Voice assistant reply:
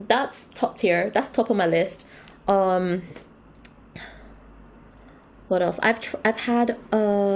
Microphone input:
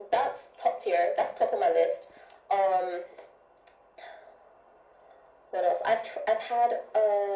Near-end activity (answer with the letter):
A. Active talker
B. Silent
B